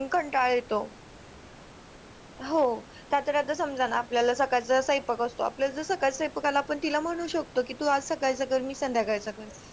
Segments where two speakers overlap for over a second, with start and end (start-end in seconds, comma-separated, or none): none